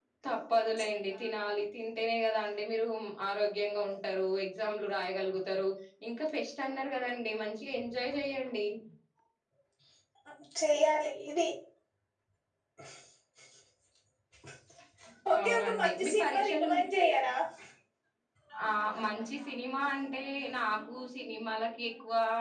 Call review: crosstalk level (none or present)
present